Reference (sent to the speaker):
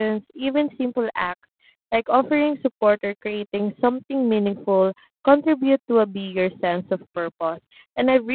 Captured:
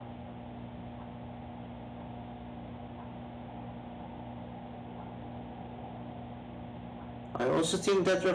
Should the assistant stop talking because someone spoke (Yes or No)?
Yes